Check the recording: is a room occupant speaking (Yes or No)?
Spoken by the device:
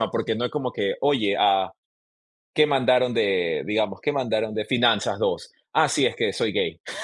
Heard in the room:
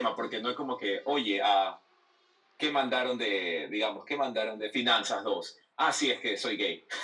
No